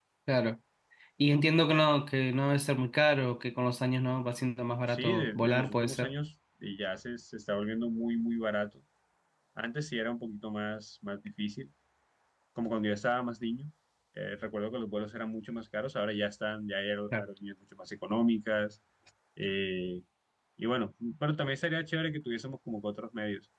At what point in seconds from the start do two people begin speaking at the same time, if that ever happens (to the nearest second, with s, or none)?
5 s